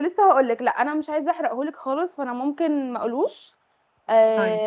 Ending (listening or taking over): listening